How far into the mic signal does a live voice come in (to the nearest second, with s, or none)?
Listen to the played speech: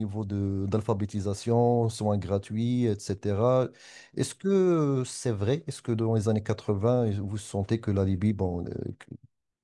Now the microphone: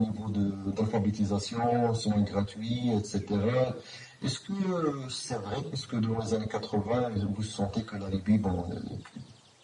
none